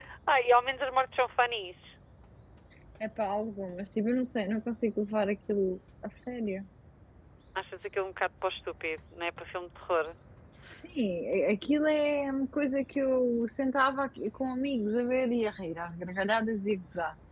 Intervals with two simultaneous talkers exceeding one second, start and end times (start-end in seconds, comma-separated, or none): none